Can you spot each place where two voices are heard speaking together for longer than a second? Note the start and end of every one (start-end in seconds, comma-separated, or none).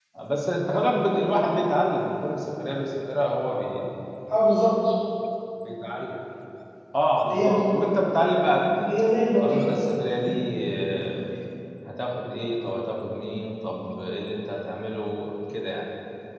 none